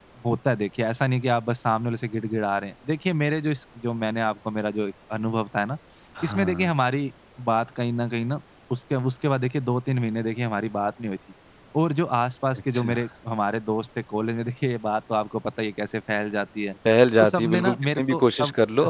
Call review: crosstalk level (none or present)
present